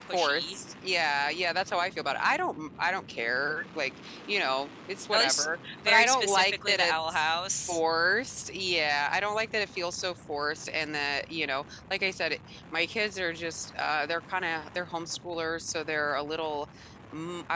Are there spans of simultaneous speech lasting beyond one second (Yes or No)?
Yes